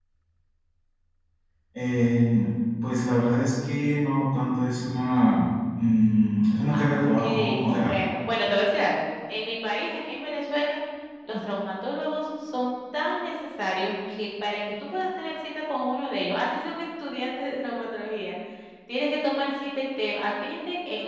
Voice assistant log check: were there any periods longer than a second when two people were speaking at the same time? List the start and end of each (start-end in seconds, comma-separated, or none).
6.7-8.0